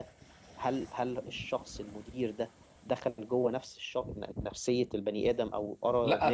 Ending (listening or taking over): taking over